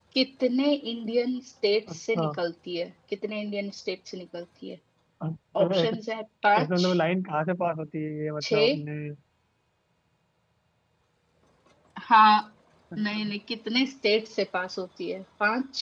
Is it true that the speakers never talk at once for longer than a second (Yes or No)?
Yes